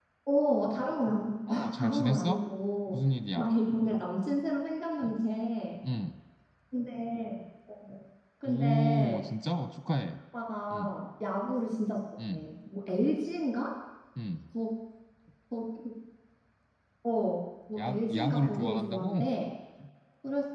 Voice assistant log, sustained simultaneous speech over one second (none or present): present